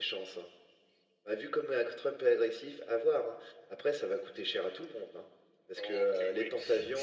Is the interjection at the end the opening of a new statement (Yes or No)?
Yes